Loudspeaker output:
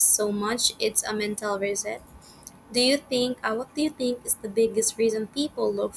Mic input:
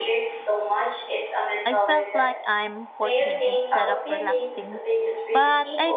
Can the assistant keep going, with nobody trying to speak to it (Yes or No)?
No